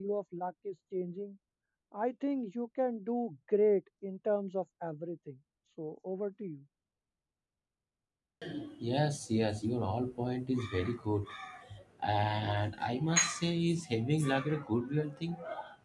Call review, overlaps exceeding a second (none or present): none